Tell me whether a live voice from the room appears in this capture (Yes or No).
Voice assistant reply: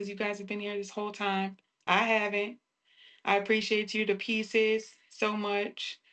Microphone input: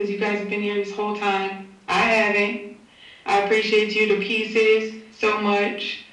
No